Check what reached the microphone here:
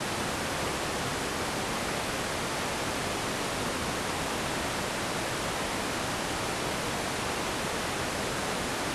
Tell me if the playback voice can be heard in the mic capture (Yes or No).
No